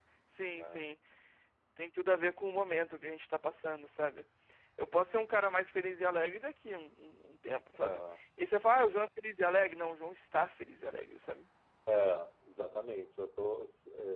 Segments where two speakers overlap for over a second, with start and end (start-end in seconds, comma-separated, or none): none